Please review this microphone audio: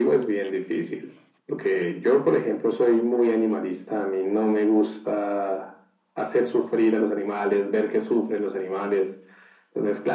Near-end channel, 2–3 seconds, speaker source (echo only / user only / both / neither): echo only